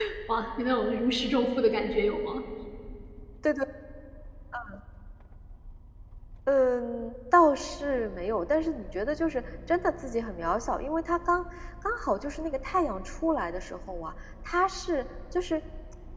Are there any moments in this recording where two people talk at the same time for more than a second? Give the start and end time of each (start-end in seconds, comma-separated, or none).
none